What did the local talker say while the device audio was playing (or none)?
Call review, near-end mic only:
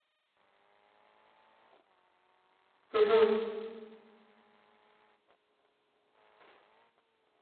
Mhm.